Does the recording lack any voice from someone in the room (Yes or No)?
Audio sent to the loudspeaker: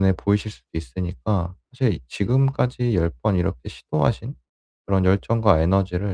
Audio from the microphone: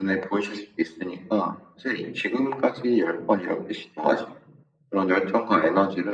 Yes